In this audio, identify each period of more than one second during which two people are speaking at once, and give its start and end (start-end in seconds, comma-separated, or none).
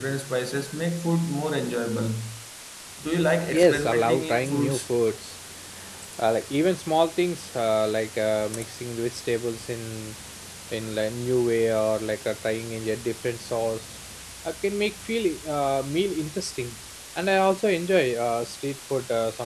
3.5-4.9